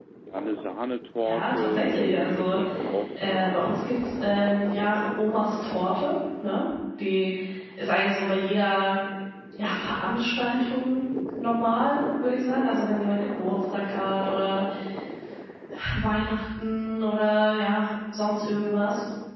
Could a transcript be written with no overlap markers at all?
No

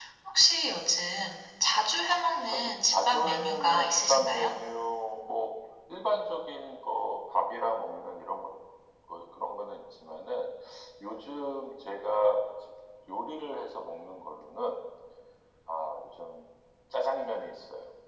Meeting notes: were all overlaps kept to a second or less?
No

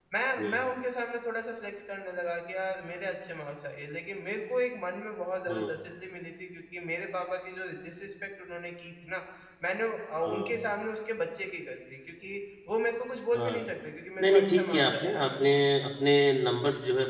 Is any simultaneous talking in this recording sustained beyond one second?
Yes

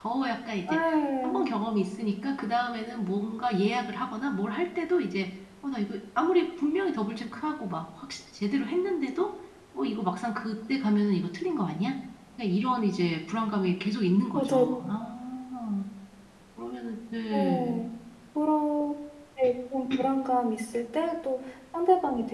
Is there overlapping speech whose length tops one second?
No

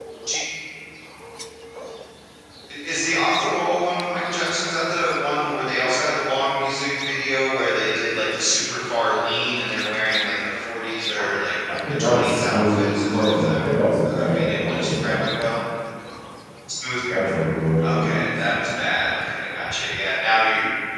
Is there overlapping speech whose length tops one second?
Yes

